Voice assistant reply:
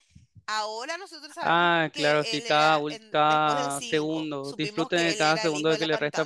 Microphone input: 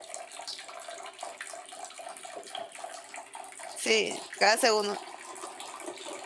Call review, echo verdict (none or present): none